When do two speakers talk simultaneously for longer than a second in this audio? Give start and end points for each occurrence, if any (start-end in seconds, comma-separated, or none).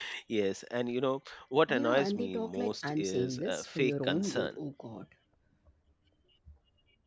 1.7-4.6